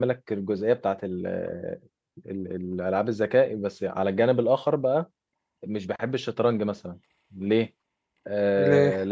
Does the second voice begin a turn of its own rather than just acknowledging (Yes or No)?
No